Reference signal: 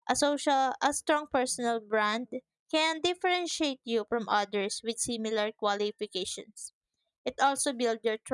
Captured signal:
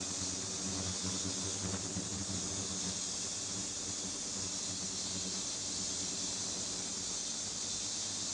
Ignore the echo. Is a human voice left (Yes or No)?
No